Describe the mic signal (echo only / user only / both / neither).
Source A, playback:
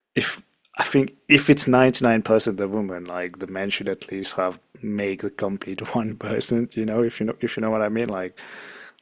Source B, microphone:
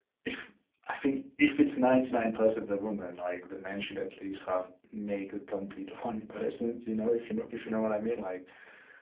echo only